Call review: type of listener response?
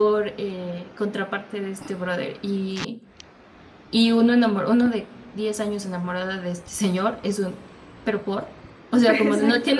listening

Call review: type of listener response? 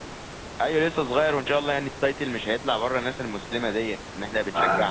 taking over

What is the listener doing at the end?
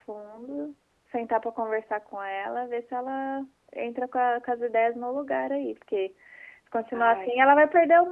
listening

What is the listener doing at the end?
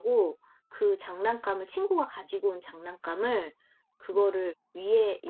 listening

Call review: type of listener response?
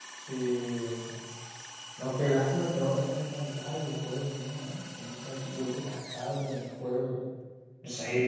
taking over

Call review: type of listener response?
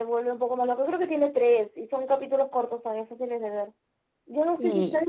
listening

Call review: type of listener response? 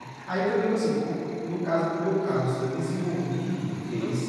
listening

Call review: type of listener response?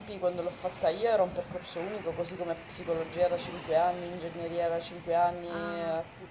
listening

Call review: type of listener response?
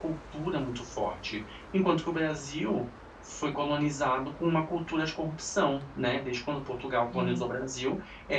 listening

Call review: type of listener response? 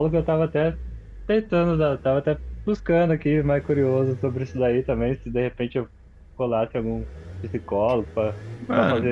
listening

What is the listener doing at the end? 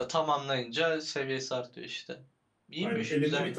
taking over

